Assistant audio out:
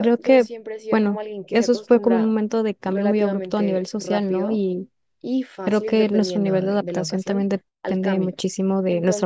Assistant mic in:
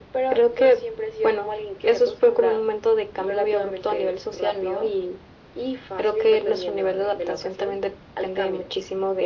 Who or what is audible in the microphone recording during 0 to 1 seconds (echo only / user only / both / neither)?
echo only